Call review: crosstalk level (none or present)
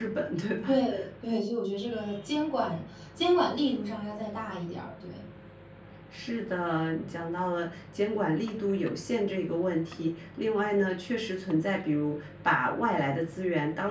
none